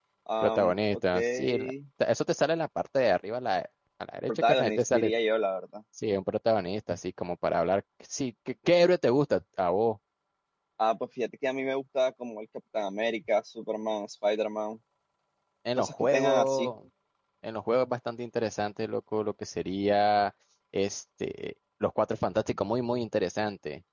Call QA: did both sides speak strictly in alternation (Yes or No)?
No